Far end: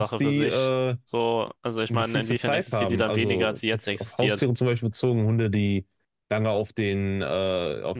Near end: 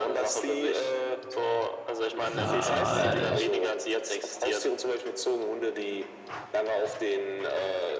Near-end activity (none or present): present